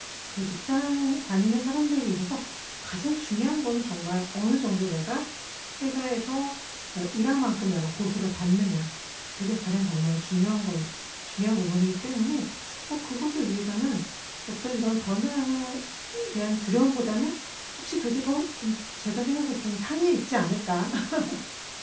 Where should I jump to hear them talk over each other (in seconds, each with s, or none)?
none